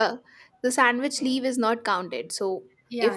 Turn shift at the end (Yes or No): No